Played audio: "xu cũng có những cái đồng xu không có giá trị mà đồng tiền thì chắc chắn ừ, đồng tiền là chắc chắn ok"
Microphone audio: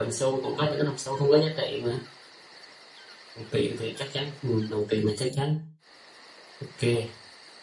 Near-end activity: none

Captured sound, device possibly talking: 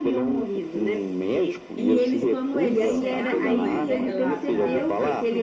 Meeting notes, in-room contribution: present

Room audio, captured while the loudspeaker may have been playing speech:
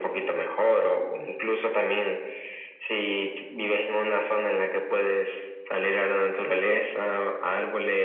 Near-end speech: none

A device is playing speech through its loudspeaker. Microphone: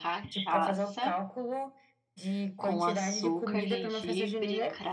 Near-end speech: present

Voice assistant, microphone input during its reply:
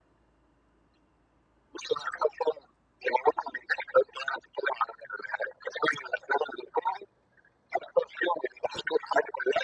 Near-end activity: none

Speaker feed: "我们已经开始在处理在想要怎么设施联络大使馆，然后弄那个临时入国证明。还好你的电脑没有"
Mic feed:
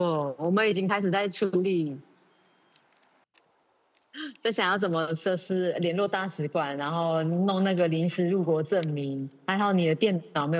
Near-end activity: none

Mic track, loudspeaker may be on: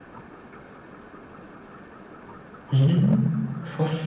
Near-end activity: present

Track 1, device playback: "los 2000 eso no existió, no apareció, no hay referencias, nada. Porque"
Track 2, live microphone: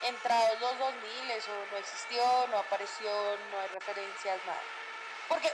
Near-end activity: none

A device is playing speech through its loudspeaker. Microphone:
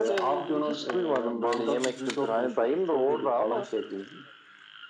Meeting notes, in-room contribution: none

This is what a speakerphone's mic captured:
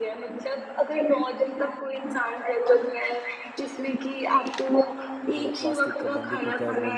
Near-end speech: present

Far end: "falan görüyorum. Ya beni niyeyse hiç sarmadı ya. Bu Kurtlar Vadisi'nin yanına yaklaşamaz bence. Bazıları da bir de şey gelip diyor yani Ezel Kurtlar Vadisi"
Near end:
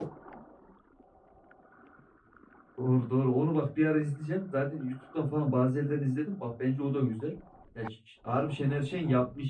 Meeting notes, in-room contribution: present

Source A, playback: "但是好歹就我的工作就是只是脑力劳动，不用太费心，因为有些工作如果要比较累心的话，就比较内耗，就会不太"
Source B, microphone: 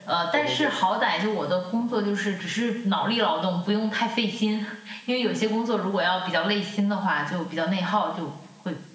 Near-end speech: present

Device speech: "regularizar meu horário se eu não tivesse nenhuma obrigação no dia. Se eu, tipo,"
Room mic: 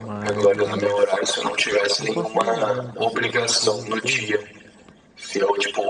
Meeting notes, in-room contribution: present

